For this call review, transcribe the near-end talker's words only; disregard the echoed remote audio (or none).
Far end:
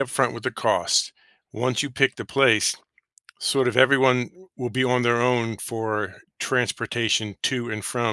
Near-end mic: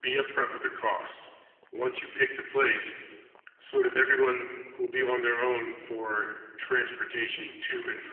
none